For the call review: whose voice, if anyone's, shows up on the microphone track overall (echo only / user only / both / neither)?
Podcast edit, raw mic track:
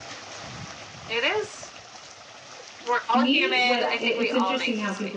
both